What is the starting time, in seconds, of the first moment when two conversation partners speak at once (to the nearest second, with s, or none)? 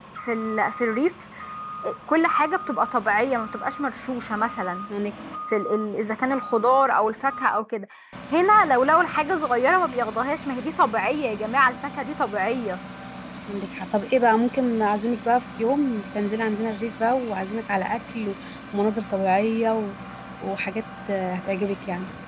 none